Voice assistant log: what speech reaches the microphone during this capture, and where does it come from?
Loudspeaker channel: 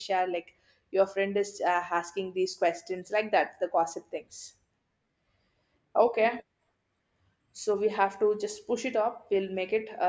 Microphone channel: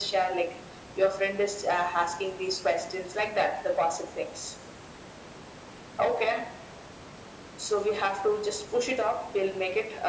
echo only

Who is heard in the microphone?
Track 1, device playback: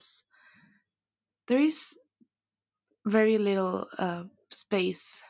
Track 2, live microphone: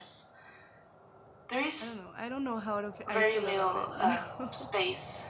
both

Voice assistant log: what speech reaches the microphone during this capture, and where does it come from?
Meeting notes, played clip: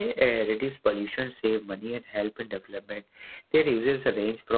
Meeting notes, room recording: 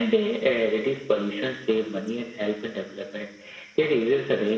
echo only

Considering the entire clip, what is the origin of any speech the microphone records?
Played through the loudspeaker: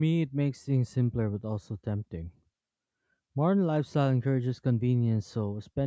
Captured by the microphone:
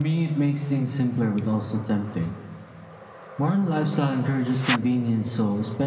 echo only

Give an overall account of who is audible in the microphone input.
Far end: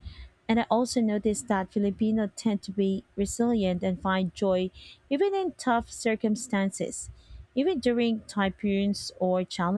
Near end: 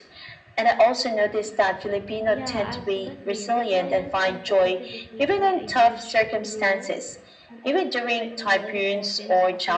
both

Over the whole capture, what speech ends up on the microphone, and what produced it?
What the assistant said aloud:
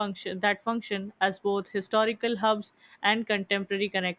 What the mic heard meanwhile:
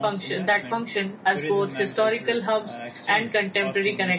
both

